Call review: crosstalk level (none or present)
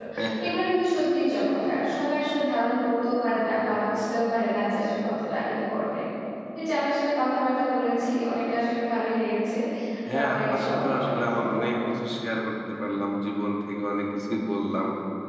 present